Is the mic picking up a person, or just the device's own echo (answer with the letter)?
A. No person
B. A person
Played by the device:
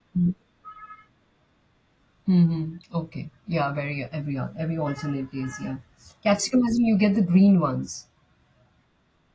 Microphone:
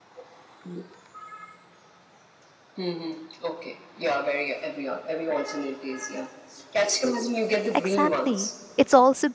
B